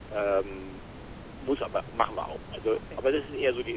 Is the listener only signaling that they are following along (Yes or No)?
Yes